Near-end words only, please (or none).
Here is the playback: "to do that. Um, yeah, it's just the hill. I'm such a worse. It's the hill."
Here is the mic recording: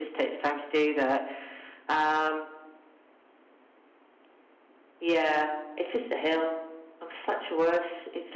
none